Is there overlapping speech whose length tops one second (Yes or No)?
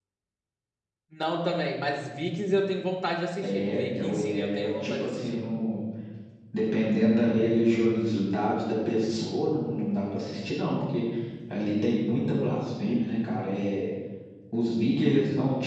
Yes